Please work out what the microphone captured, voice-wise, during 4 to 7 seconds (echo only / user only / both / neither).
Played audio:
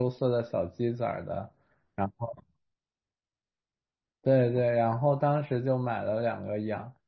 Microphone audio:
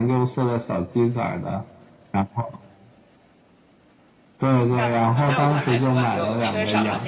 both